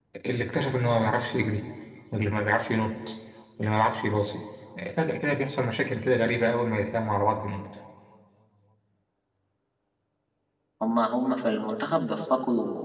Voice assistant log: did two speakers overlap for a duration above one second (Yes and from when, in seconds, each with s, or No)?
No